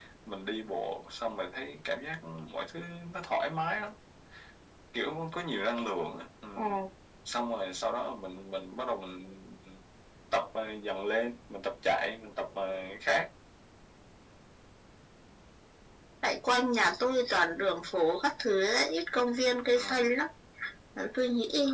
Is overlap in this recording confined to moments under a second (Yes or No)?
Yes